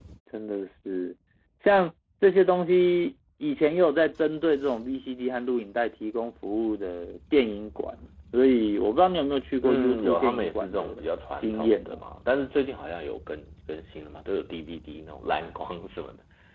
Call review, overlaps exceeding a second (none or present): present